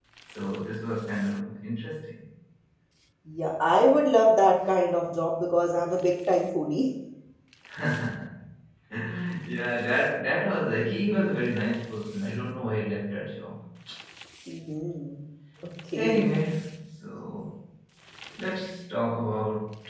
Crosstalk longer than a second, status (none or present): none